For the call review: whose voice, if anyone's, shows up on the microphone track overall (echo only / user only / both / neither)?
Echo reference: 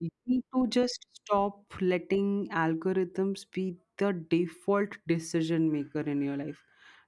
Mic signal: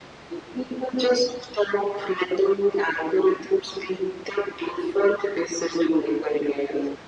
echo only